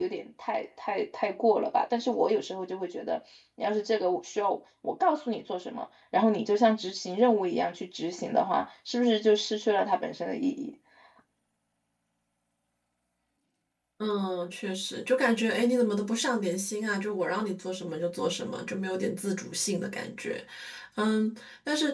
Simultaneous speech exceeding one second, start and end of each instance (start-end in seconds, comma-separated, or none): none